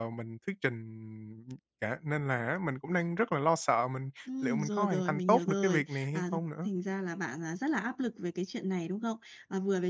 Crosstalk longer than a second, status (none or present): present